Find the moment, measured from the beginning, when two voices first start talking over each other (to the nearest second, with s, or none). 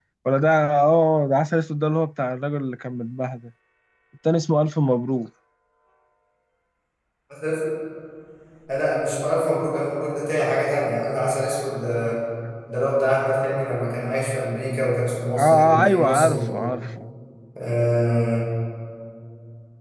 15 s